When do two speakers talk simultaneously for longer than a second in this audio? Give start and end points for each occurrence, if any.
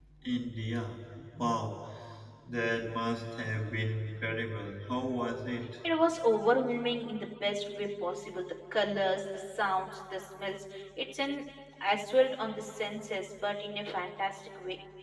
none

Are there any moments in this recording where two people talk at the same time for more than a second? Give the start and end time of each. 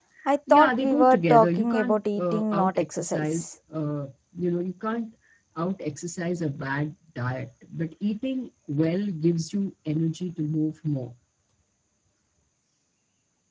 0.5-3.5

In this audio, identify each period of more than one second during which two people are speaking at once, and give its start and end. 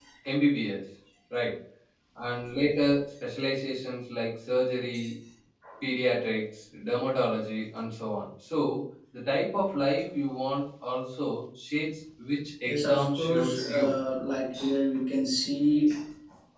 12.6-13.9

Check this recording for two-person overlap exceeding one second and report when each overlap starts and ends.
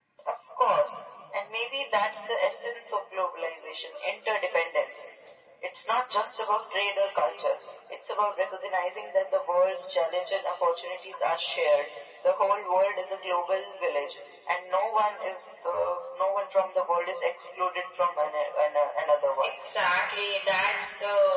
none

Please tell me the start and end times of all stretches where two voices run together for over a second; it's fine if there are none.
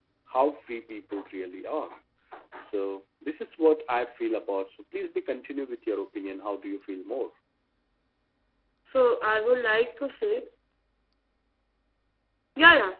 none

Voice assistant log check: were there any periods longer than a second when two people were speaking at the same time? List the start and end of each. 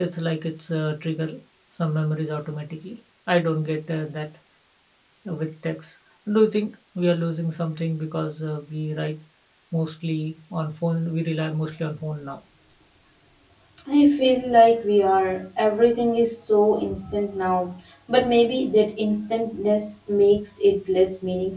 none

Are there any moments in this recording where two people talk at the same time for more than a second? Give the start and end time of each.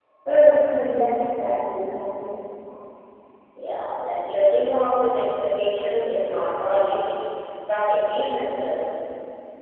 none

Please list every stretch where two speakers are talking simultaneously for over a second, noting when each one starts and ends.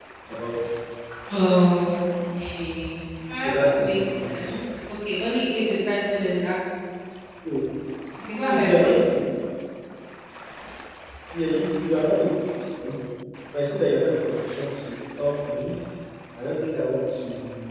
3.3-4.6

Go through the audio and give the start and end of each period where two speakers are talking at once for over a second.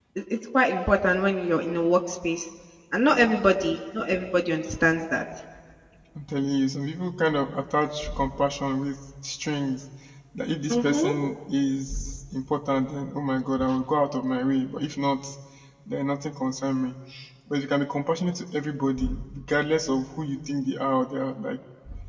none

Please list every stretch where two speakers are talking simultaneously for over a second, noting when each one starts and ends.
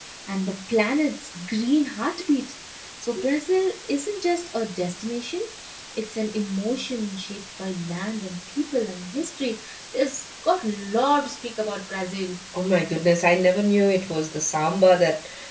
none

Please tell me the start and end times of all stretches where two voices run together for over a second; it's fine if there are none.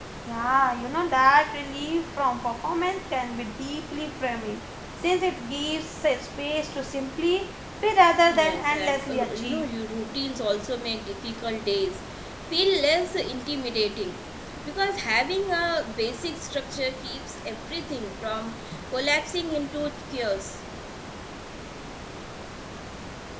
8.3-9.7

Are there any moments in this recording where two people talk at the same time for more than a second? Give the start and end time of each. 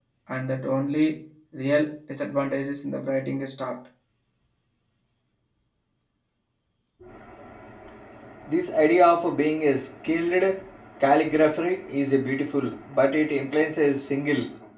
none

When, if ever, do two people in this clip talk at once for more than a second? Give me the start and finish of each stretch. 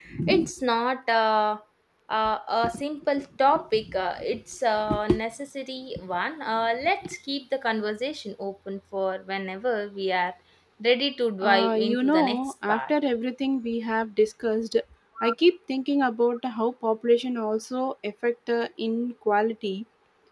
11.4-12.9

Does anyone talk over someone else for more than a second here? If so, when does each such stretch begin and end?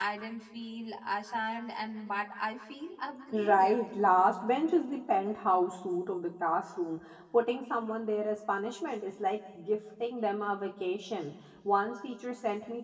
none

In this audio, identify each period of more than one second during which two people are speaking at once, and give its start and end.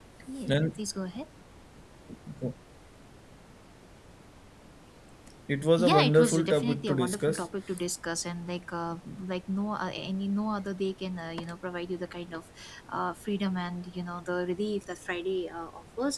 5.8-7.5

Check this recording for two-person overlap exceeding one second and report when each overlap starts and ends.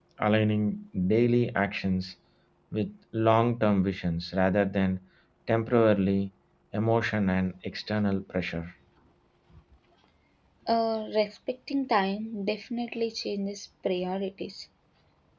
none

